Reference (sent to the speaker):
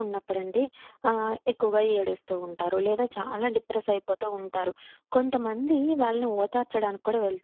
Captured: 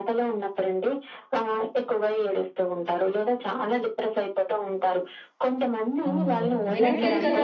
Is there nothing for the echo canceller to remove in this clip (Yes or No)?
No